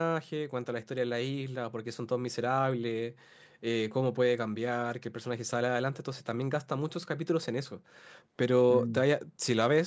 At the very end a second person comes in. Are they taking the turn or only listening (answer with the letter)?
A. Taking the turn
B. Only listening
B